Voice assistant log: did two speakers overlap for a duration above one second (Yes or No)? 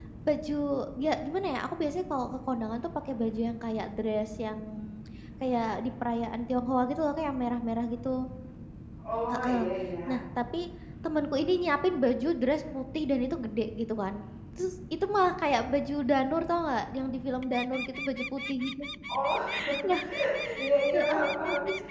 No